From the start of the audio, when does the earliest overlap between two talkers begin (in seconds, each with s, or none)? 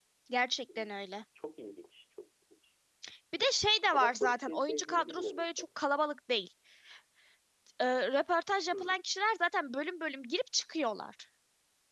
3.9 s